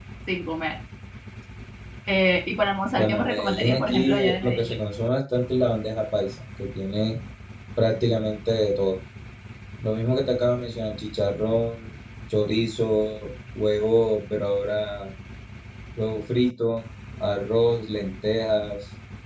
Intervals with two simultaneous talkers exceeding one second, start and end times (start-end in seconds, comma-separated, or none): 3.0-4.7